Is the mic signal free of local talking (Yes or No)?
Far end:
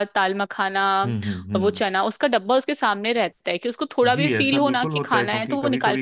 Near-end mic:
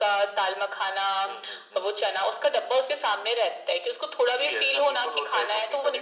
Yes